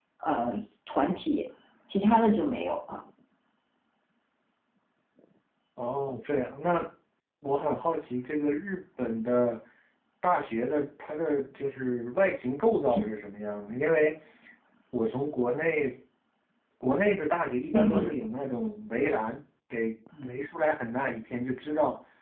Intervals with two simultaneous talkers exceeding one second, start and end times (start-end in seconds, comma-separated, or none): none